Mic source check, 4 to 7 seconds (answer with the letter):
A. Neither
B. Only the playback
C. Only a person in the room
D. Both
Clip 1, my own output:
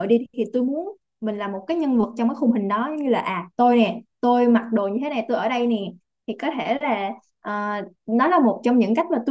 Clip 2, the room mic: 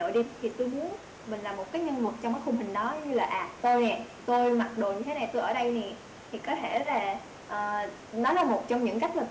B